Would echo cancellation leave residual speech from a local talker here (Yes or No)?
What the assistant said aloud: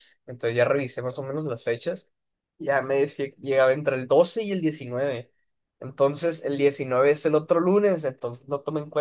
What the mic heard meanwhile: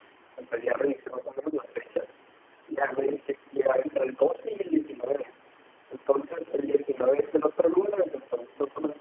No